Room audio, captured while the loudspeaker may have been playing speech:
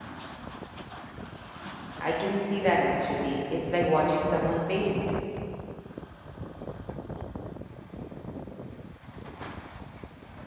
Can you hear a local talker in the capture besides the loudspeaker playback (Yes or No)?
Yes